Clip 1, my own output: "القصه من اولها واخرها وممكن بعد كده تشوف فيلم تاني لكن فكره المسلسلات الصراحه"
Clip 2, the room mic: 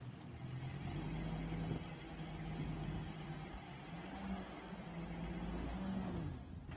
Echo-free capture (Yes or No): Yes